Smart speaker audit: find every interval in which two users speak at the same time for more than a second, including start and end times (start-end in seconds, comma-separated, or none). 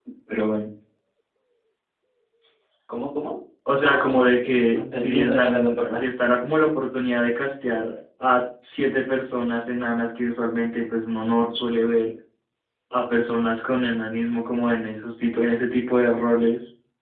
3.8-6.0